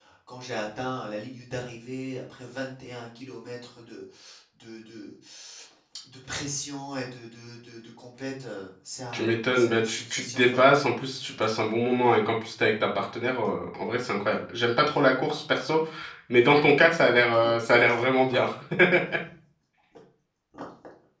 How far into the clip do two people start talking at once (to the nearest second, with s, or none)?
9 s